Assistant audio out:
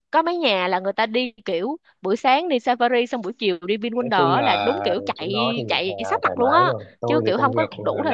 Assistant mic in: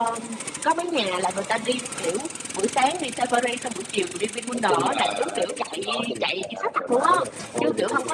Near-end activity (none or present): none